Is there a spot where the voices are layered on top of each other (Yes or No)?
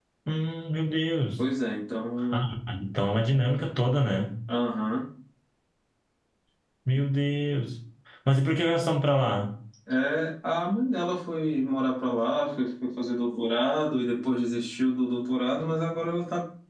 No